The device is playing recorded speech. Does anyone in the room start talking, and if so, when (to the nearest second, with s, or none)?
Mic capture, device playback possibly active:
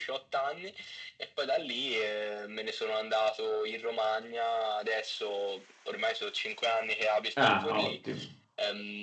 7 s